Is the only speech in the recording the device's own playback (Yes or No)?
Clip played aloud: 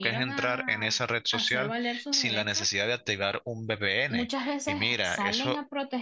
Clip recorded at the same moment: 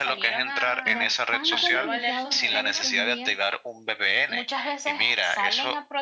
No